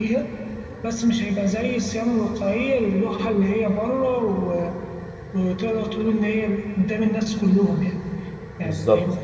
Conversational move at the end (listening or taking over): listening